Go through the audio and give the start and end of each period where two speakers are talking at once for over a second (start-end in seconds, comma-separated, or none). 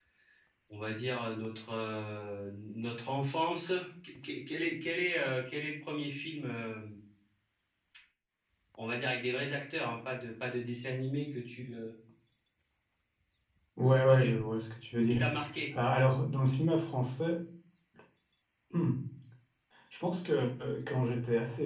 none